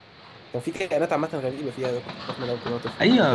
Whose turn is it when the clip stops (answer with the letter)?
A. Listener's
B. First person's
A